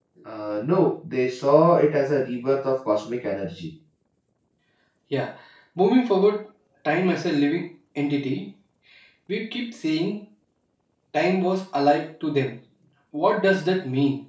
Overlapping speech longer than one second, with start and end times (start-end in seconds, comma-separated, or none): none